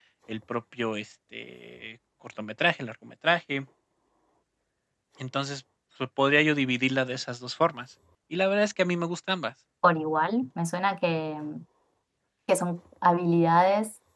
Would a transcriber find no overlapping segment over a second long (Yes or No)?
Yes